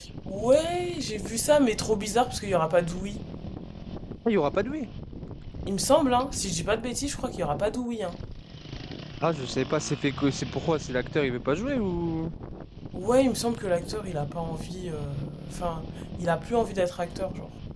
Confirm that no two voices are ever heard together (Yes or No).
Yes